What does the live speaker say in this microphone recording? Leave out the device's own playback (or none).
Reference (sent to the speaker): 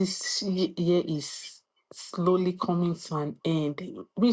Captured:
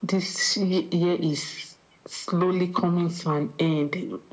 none